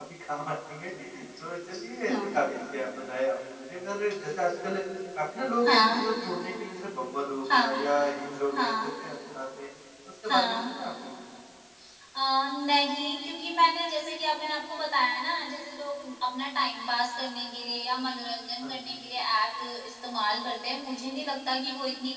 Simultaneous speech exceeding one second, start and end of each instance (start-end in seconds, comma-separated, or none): none